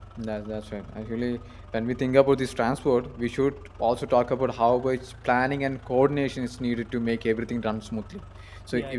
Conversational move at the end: listening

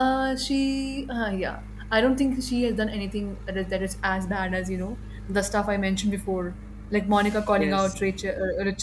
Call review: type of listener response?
listening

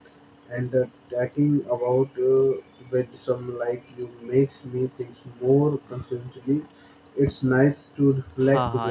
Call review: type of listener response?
taking over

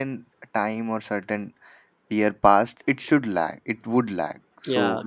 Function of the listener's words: taking over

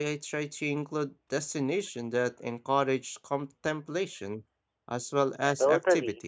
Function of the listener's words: taking over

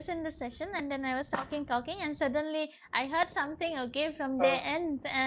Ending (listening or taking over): listening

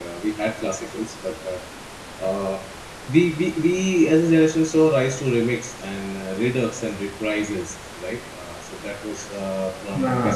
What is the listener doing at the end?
listening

